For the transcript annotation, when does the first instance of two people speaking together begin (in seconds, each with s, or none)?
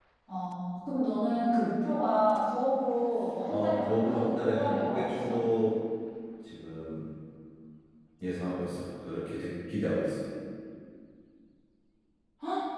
3.5 s